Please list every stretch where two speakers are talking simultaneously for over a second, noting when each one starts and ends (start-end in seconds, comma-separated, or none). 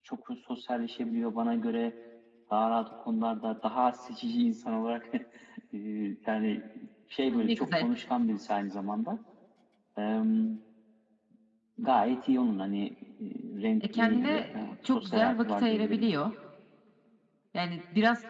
13.9-16.1